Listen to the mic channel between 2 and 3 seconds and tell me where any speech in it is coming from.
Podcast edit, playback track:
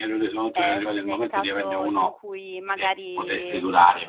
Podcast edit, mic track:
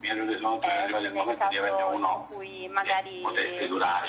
echo only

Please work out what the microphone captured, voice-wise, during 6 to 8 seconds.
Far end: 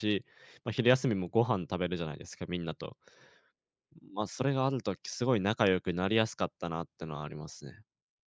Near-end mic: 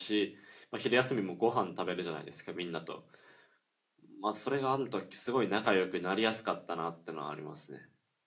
echo only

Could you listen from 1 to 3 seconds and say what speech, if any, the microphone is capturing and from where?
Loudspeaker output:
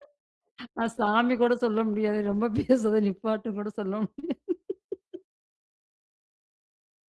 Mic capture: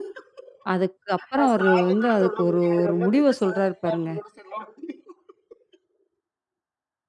both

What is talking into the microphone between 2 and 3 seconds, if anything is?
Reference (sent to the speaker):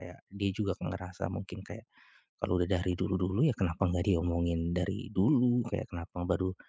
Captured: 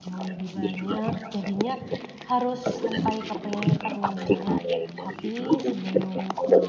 both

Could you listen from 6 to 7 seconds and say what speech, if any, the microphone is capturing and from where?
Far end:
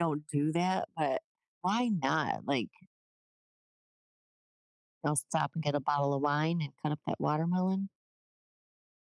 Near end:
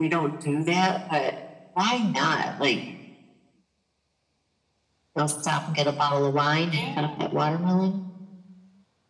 both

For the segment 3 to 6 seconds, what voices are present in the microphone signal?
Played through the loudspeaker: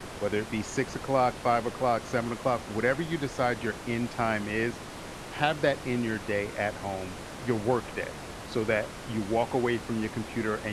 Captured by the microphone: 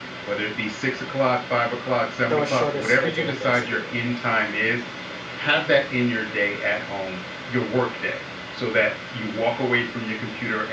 both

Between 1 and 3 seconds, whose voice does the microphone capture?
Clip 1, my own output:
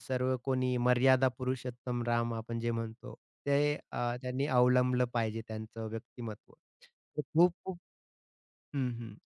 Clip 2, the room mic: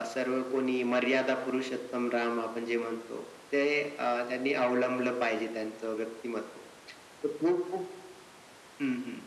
echo only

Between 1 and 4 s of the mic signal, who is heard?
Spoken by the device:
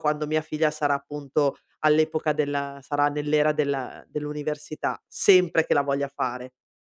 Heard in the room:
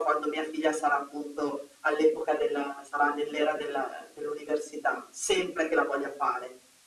echo only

